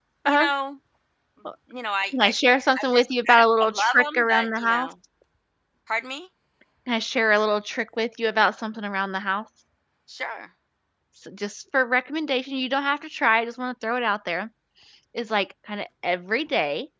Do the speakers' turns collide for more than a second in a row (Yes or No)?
Yes